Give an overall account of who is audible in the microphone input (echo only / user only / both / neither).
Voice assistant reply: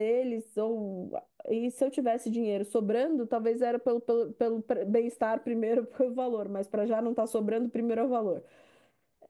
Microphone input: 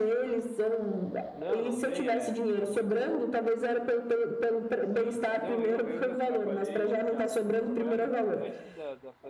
both